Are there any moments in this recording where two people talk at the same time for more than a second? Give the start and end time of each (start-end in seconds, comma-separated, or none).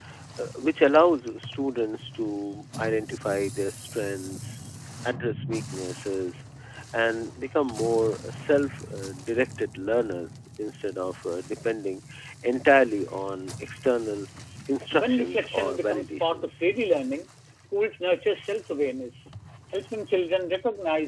14.9-16.6